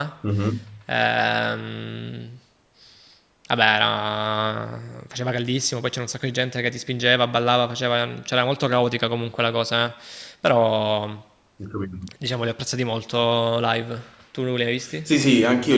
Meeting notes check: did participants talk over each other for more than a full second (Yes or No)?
No